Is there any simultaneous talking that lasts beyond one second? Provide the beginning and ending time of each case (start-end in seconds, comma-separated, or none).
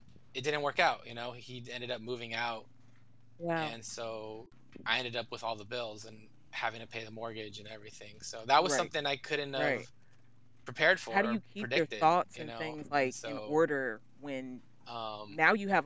11.1-13.6